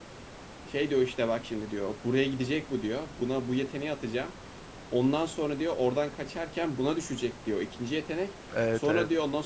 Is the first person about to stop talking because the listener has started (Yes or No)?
No